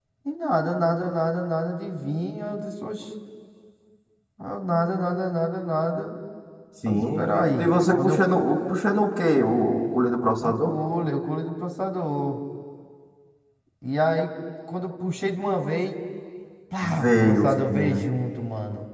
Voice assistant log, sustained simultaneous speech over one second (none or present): present